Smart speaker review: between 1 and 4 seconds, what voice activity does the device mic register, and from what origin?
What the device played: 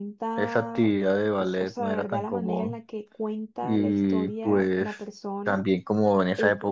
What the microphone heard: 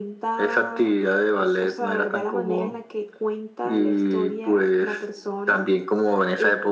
echo only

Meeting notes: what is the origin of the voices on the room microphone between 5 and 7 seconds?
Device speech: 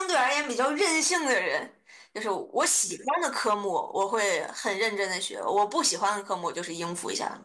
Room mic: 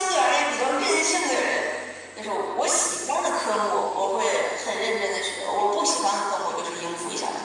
echo only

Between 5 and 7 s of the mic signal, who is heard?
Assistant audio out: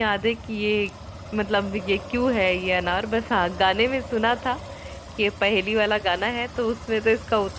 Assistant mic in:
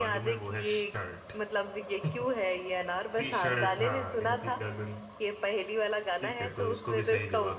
both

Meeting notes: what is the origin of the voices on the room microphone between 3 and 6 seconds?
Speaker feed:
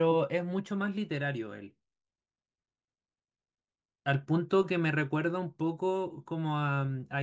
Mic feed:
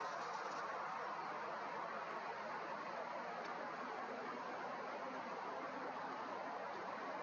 neither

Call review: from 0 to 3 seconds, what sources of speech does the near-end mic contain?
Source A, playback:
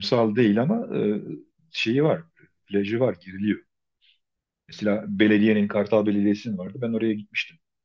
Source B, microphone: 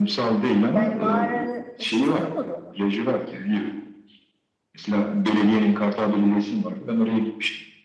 both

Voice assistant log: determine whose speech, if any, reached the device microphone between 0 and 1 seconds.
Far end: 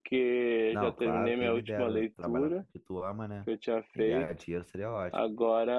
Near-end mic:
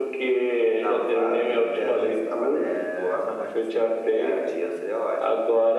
echo only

